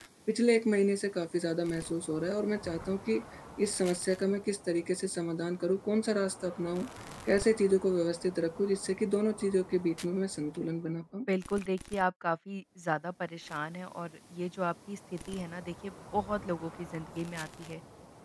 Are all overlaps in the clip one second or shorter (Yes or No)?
Yes